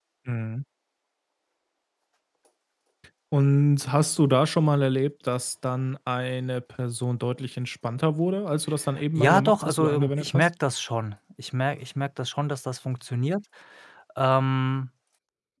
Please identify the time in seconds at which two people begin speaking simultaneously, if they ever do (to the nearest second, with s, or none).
9 s